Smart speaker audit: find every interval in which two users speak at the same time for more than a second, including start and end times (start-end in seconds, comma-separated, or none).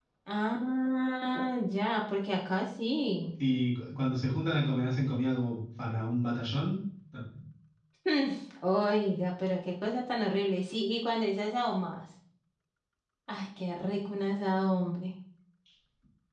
none